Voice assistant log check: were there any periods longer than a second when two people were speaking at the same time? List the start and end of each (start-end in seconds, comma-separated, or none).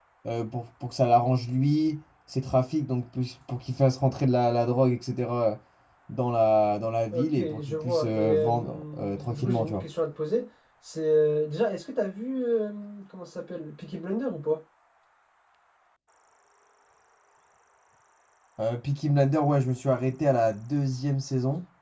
7.1-9.8